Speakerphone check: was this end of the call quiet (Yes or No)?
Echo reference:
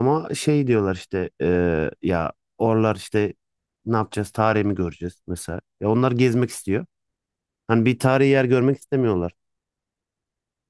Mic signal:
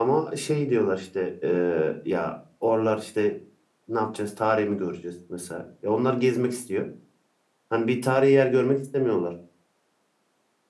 Yes